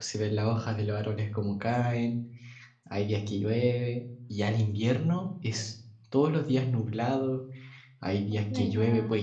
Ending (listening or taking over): listening